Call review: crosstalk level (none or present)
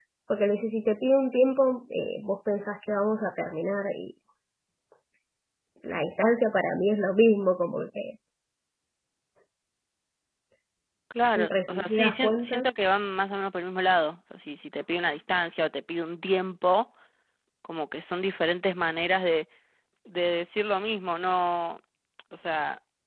present